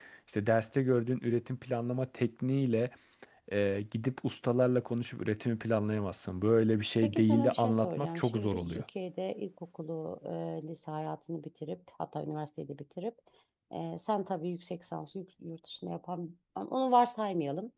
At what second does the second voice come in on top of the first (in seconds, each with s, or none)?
7.0 s